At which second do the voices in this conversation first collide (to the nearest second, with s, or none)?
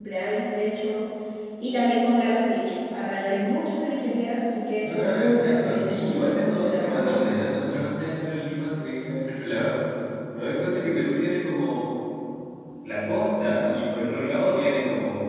5 s